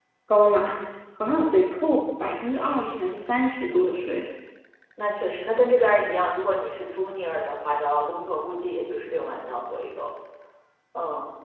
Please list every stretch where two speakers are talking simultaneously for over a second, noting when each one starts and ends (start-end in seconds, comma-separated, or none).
none